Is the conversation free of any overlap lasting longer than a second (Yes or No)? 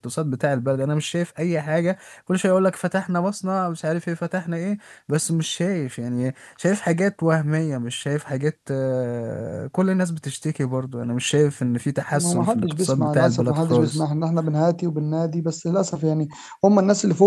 No